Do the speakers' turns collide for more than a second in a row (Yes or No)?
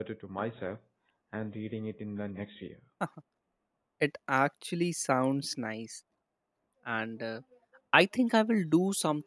No